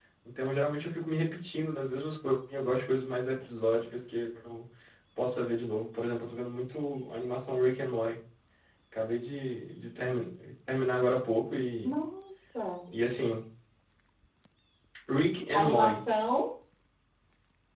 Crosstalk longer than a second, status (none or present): none